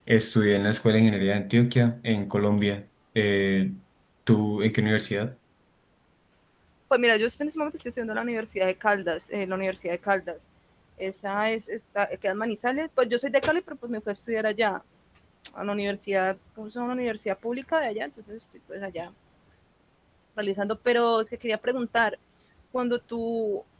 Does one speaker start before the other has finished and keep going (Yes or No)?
No